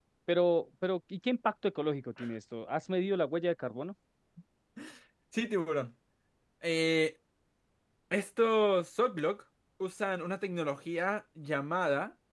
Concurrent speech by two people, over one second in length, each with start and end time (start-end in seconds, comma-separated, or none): none